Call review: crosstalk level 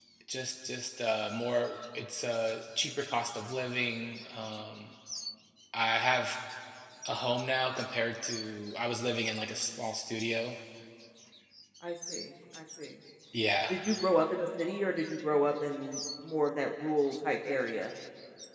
none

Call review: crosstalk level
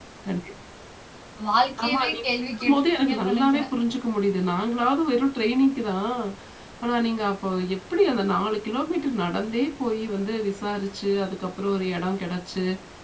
present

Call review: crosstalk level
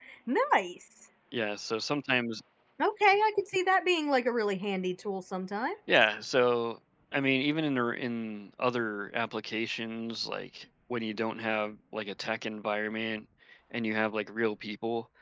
none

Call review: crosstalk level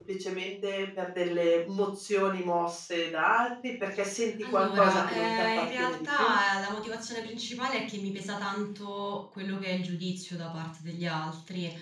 present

